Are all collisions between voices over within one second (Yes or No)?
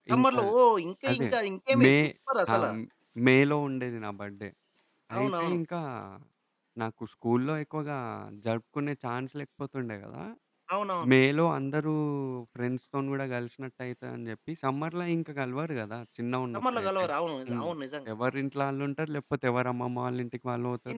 Yes